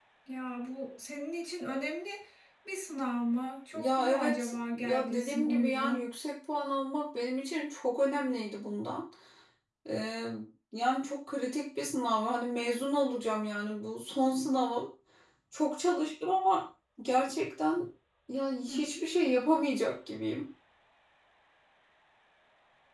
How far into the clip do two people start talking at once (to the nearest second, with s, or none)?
4 s